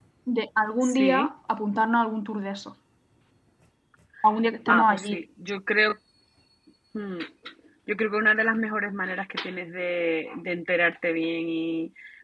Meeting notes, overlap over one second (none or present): none